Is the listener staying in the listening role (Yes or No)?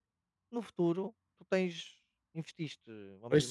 Yes